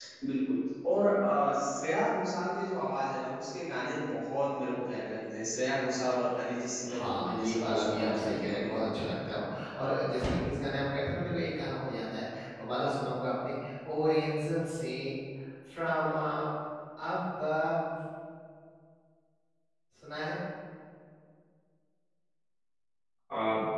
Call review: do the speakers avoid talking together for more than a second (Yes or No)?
No